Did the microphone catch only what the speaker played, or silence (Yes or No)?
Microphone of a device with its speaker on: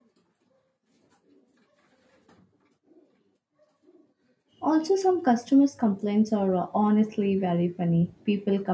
No